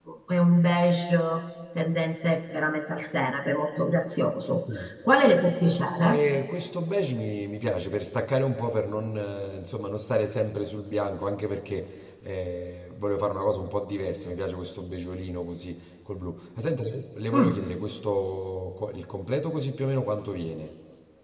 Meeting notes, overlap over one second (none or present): none